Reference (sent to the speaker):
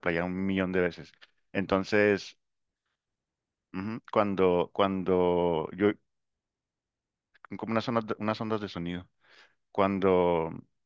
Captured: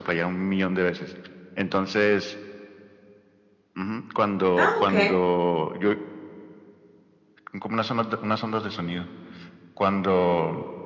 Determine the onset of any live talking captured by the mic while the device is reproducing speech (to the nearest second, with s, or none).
5 s